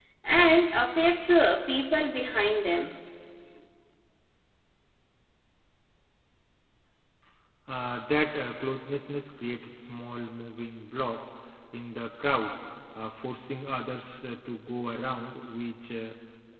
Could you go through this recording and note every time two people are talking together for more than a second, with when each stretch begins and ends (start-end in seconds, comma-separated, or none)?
none